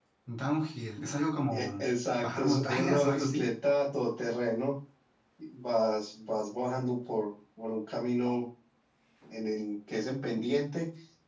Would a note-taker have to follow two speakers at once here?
Yes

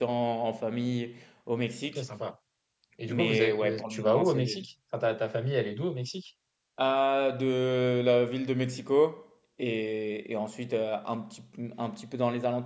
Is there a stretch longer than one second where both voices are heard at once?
Yes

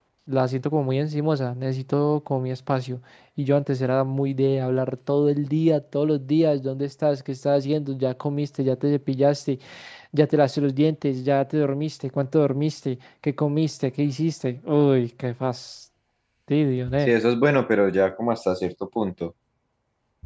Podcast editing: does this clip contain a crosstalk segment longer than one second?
No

